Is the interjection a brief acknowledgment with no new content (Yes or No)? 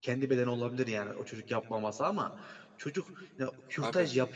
Yes